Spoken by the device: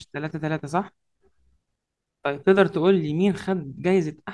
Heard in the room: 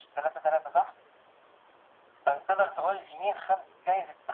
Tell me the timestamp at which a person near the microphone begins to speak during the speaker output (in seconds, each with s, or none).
none